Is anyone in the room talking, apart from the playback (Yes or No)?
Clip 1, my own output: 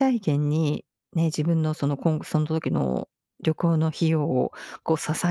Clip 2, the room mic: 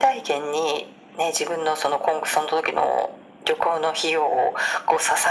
No